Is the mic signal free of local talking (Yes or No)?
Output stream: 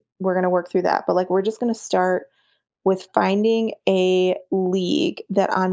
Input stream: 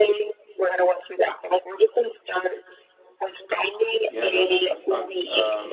No